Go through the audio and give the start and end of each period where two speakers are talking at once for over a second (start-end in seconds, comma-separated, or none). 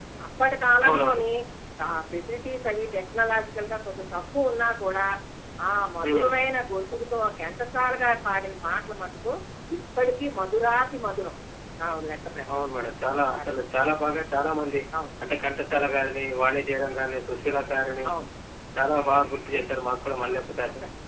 none